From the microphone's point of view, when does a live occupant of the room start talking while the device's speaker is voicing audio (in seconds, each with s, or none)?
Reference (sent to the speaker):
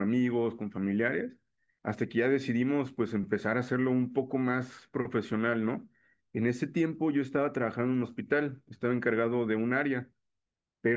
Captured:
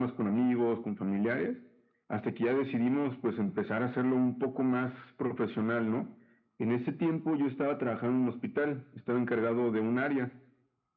none